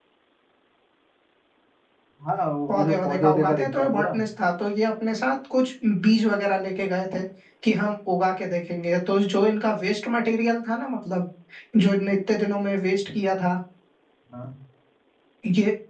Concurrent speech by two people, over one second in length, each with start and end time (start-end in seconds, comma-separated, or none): 2.7-4.0